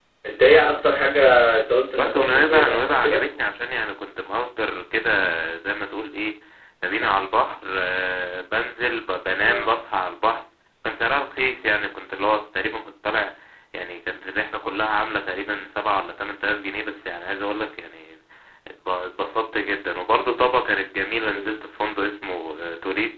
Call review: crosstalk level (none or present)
present